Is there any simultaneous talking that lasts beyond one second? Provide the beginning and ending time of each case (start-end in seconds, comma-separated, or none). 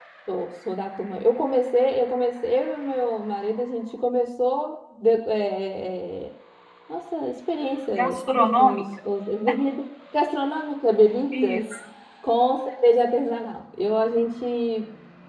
none